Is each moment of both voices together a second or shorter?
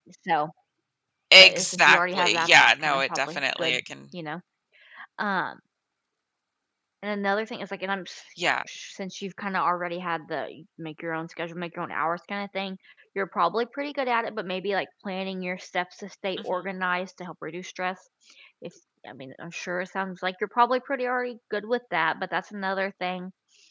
No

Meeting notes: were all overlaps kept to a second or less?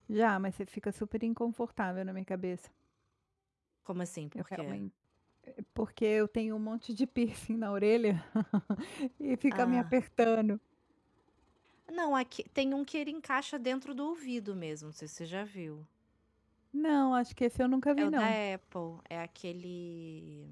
Yes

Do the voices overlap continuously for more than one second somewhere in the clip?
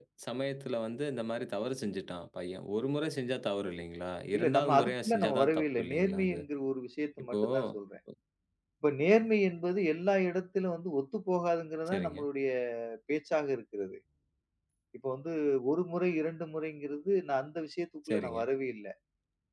Yes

